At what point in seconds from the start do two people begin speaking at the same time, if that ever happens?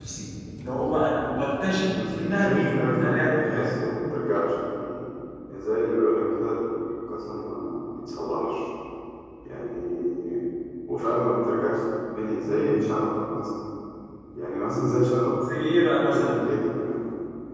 1.8 s

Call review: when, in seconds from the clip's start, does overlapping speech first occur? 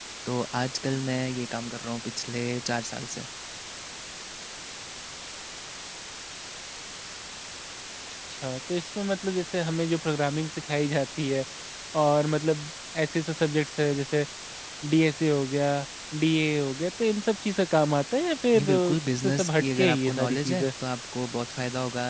18.5 s

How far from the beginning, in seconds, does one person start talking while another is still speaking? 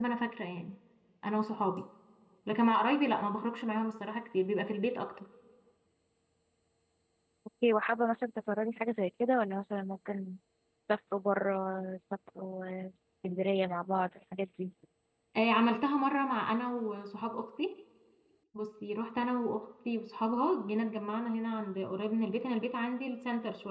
none

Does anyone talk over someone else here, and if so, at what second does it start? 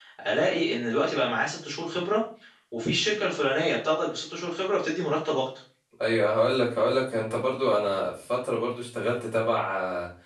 none

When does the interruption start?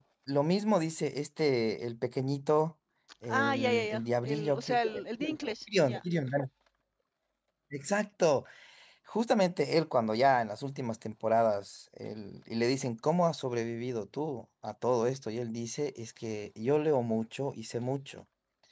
3.3 s

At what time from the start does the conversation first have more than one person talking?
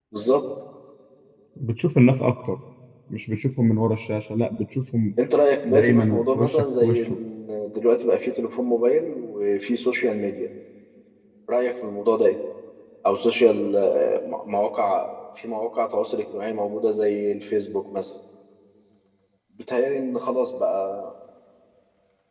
5.6 s

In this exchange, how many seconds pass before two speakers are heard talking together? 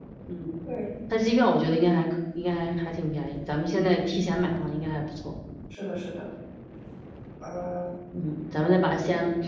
none

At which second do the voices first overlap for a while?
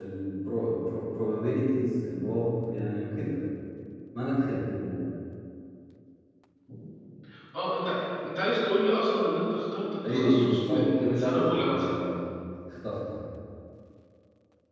10.0 s

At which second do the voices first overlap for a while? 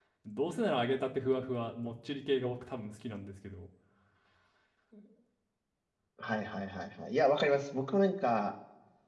none

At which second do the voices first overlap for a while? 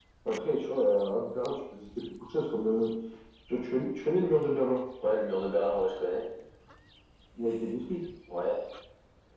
none

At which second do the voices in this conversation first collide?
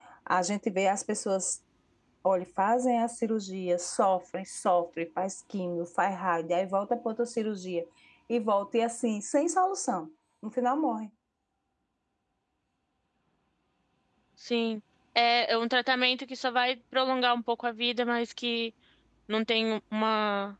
none

